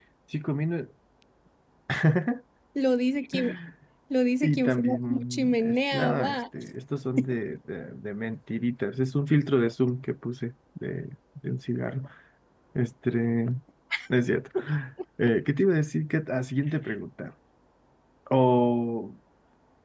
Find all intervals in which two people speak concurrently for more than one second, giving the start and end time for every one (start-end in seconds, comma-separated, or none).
4.4-6.4